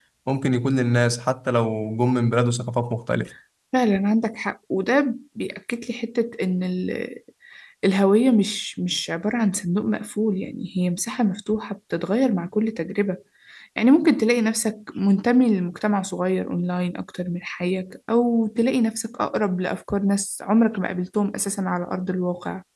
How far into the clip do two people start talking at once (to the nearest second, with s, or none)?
none